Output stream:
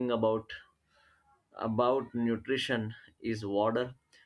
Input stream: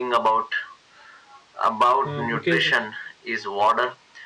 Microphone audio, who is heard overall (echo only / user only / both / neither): both